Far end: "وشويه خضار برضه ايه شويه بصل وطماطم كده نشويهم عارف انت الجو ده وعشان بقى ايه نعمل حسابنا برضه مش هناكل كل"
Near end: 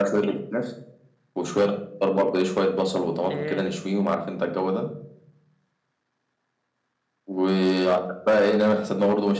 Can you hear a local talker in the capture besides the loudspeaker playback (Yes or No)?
Yes